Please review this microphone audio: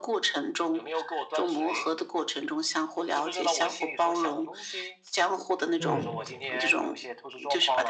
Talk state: both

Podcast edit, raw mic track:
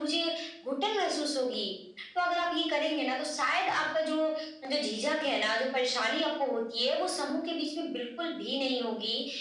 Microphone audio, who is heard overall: echo only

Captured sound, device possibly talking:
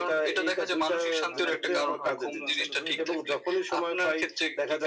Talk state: both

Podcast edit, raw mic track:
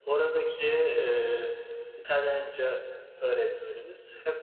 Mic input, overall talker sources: echo only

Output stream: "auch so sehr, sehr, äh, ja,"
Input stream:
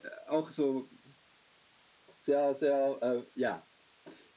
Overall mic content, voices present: echo only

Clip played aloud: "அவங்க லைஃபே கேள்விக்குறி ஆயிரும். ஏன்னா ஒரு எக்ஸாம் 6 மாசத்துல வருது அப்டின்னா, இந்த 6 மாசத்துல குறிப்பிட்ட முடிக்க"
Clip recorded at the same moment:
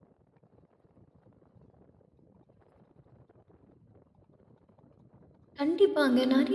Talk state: user only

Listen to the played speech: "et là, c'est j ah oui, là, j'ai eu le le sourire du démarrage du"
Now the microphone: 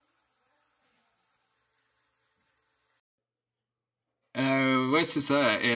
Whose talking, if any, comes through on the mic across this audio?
user only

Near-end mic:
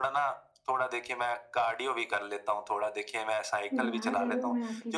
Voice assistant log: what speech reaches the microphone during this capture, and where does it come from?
both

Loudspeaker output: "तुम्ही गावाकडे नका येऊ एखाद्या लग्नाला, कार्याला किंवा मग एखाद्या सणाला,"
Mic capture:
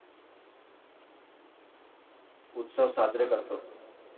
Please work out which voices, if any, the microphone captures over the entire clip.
user only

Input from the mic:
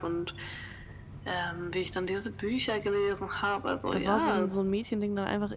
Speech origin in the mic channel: both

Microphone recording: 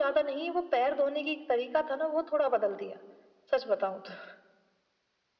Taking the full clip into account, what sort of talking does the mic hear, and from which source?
echo only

